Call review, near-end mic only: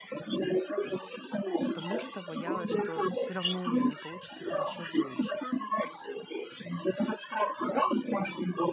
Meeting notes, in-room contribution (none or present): present